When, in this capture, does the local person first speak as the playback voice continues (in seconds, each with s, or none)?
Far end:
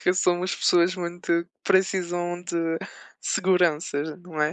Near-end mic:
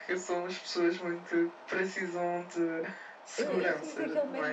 3.4 s